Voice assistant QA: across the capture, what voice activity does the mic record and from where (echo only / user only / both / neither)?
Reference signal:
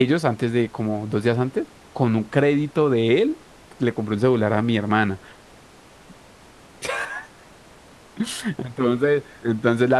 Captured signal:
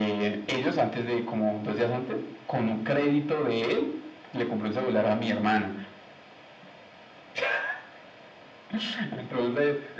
echo only